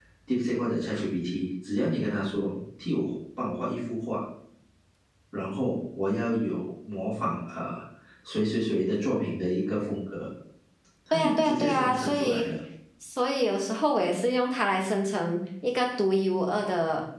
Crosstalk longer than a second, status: present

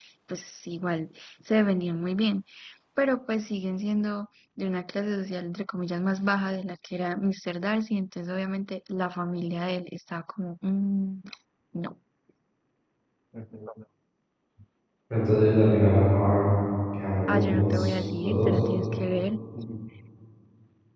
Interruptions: present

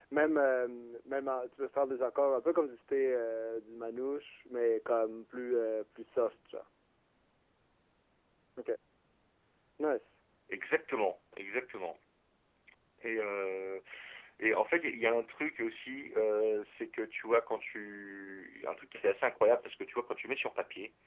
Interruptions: none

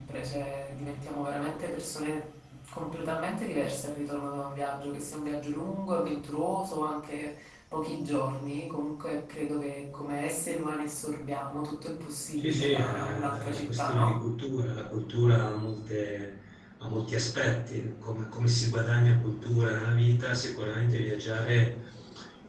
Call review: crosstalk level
present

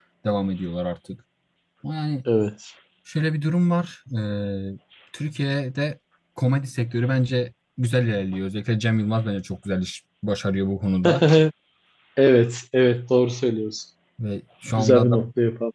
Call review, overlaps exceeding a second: none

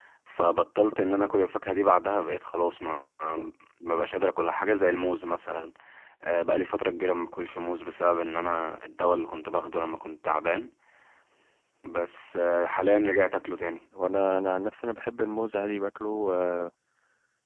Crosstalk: none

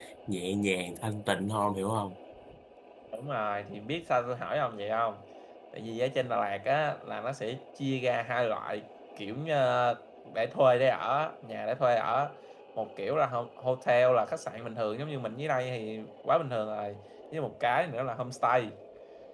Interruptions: none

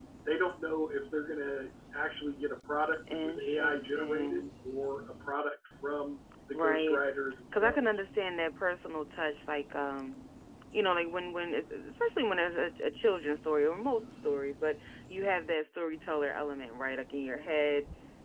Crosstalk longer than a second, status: present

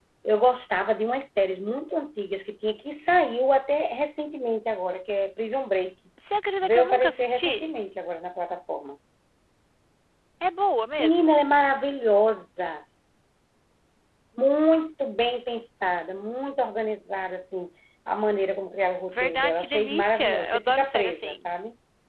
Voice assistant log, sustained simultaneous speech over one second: present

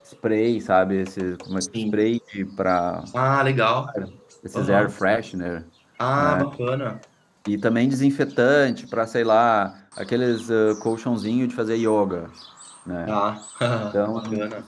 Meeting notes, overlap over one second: none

